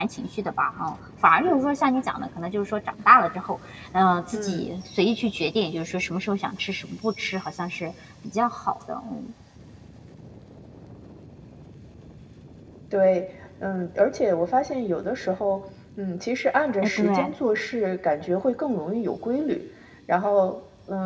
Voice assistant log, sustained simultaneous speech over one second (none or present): none